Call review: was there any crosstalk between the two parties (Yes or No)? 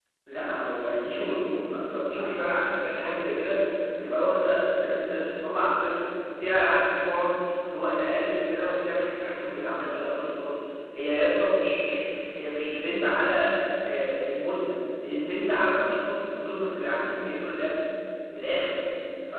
No